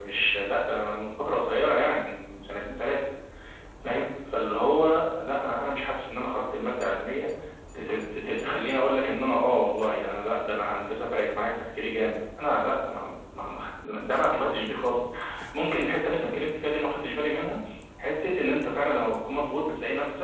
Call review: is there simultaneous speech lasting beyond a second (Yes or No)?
No